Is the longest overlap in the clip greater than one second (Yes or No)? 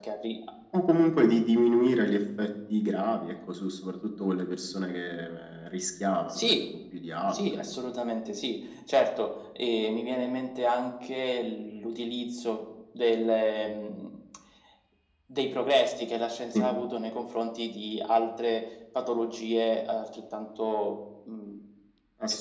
No